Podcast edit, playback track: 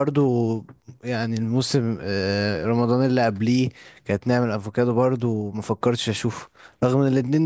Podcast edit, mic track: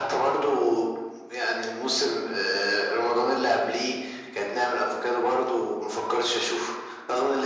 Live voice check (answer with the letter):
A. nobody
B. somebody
A